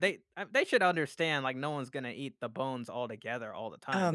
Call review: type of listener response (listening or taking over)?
taking over